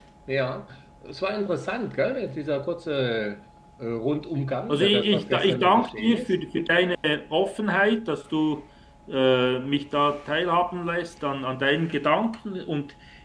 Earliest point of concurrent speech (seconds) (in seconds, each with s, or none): 4.7 s